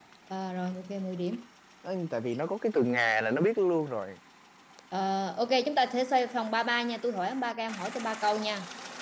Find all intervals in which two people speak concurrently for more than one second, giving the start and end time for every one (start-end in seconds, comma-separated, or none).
none